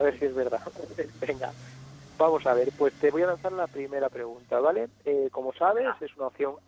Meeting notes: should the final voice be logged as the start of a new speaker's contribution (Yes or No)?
No